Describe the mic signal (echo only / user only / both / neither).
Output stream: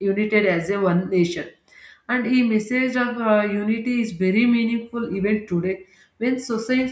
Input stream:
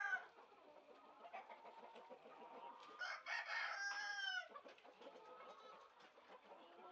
neither